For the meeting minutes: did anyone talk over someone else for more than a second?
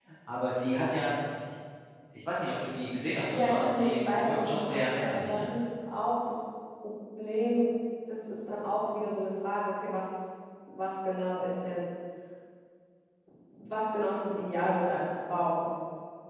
Yes, from 3.3 s

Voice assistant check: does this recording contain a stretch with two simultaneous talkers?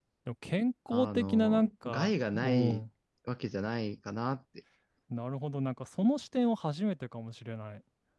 Yes, from 0.9 s

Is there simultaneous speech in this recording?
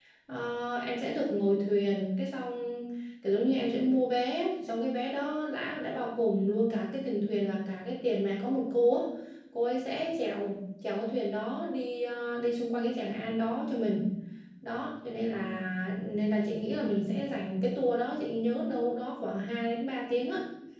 No

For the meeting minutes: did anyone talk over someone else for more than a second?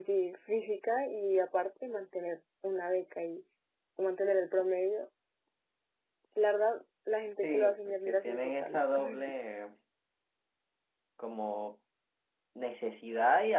Yes, from 7.4 s

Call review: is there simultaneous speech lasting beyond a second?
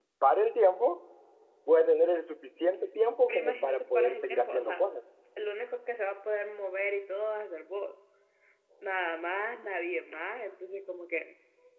Yes, from 3.3 s

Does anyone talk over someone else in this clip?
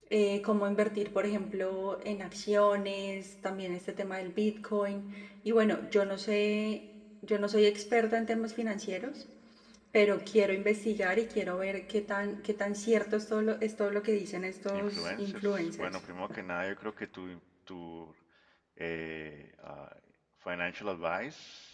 Yes, from 14.7 s

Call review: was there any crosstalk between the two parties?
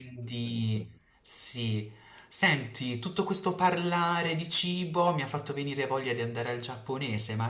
No

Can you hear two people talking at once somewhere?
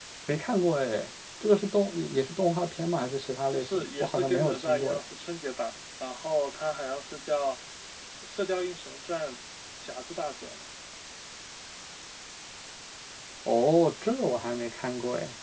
Yes, from 3.5 s

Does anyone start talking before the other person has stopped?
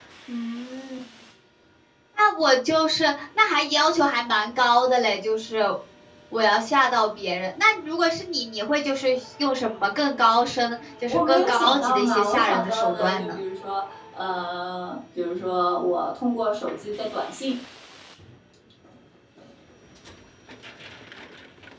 Yes, from 11.1 s

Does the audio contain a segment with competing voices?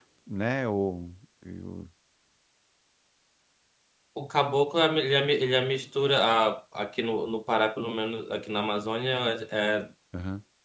No

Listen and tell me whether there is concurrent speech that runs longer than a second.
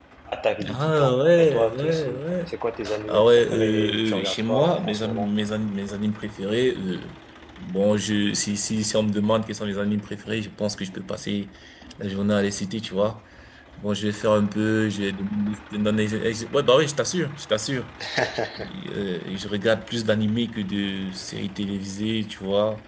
Yes, from 0.7 s

